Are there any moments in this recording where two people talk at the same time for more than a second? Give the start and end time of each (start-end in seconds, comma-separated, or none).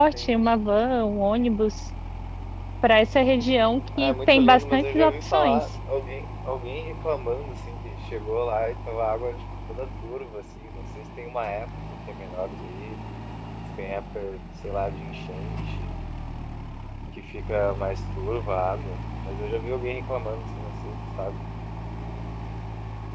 4.0-5.6